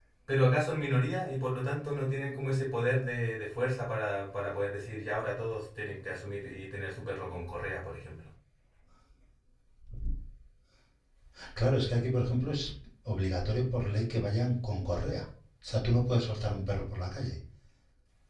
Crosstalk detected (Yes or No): No